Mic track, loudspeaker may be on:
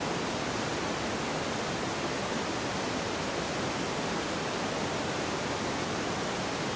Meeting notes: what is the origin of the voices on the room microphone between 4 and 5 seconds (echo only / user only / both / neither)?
neither